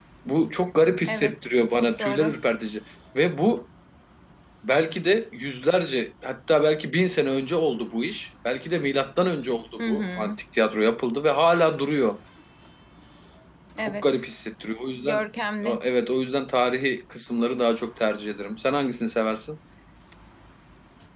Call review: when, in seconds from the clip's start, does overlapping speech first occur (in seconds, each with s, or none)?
1.0 s